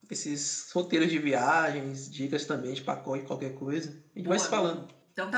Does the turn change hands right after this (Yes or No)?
Yes